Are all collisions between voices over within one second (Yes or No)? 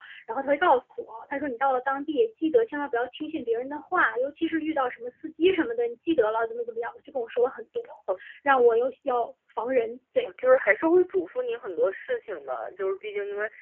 Yes